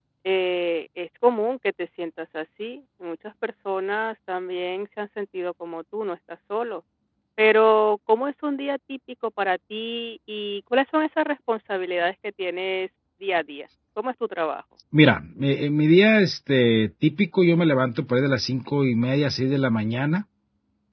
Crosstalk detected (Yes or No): No